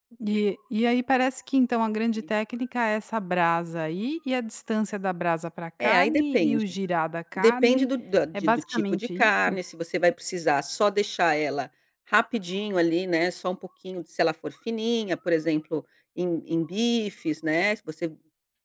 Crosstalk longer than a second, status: present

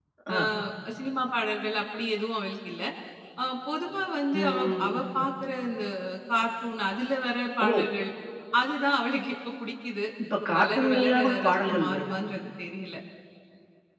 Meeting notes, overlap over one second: present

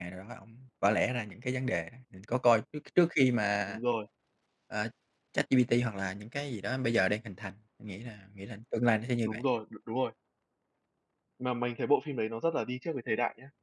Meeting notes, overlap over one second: none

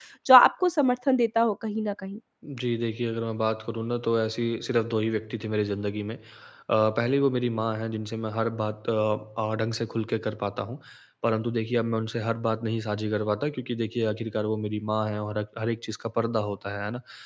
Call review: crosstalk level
none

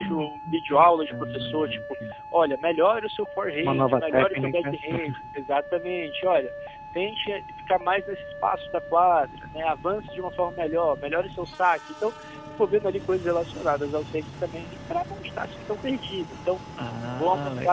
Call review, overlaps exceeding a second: present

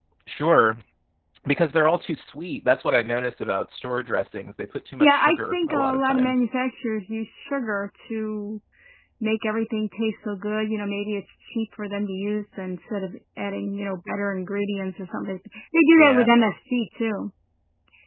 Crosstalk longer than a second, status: present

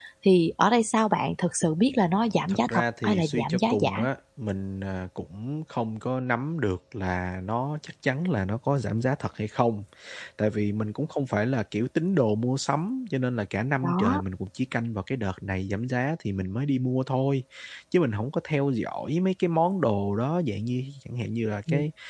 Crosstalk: present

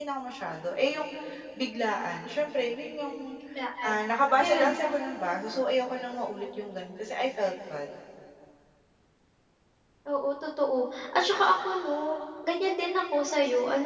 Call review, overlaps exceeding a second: none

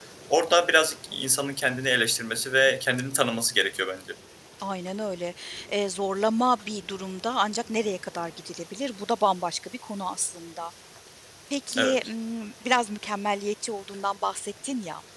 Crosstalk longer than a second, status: none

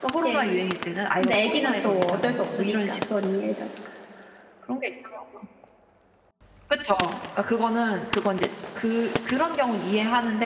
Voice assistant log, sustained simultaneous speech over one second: present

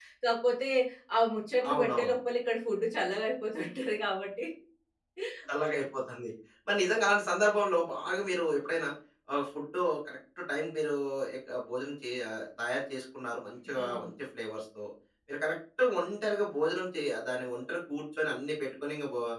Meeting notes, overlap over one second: none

